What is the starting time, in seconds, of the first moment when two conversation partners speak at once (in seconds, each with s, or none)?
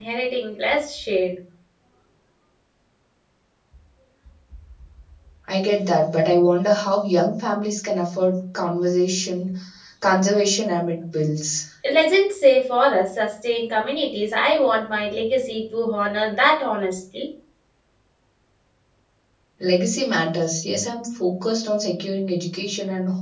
none